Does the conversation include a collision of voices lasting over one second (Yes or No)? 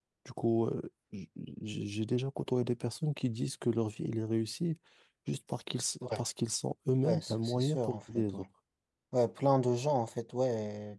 Yes